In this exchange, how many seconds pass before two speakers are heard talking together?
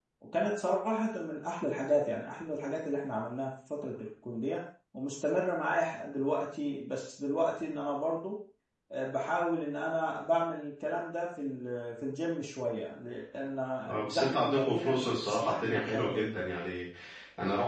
14.0 s

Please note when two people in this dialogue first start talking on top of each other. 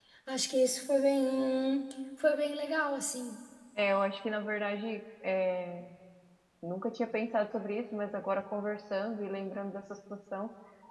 none

